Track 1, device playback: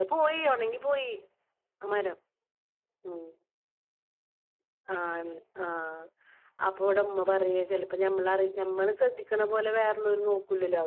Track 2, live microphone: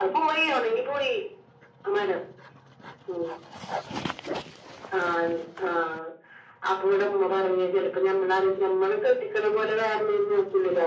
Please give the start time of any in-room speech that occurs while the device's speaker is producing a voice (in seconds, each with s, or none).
none